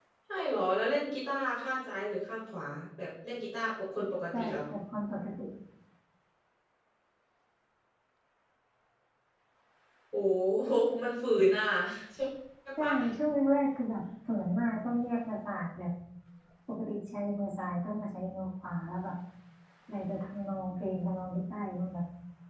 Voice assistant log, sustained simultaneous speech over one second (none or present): none